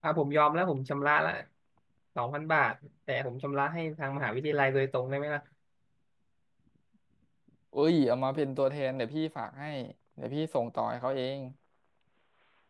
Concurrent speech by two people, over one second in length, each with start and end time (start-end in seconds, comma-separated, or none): none